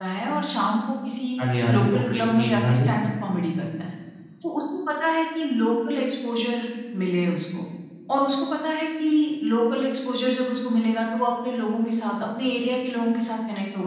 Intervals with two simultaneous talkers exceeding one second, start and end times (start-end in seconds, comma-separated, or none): 1.7-2.9